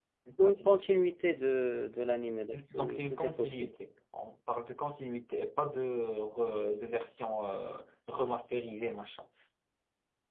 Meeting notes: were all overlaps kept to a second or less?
No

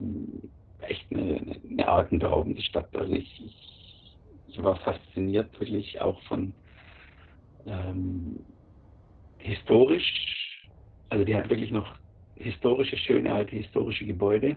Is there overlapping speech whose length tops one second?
No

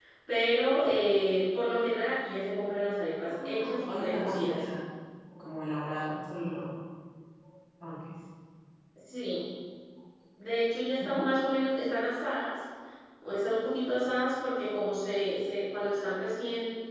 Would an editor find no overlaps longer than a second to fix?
No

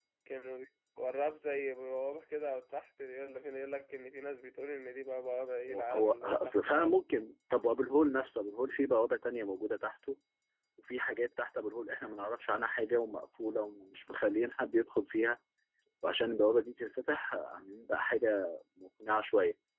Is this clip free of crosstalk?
No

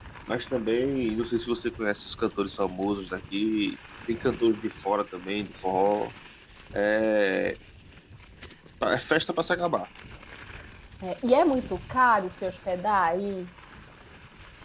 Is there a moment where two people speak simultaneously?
No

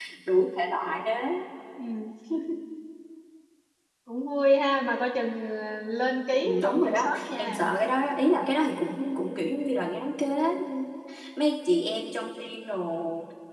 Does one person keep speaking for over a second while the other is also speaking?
Yes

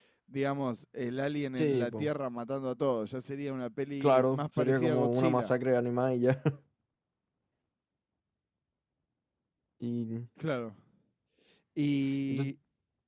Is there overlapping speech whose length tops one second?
Yes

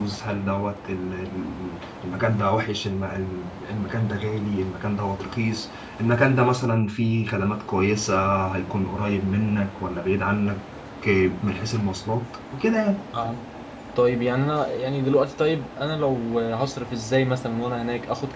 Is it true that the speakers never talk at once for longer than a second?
Yes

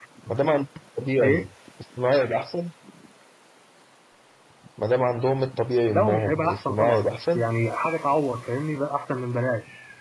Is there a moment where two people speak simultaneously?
Yes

